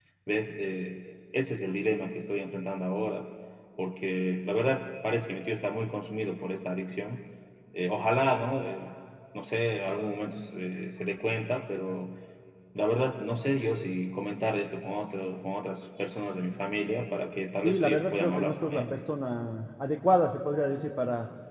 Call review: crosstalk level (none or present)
present